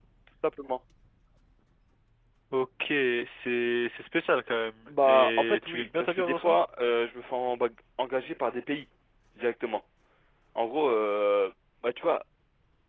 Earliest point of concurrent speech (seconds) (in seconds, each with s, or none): 4.9 s